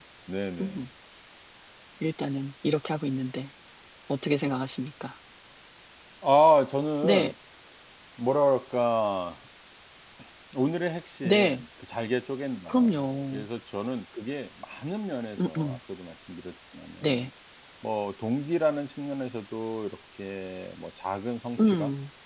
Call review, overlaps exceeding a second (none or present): none